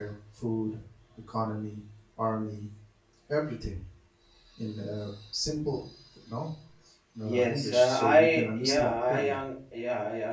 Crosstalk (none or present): present